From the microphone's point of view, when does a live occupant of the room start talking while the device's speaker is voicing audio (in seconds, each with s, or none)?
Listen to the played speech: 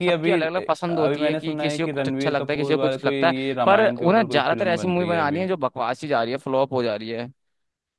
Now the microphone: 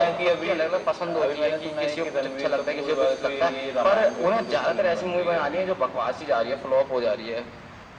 none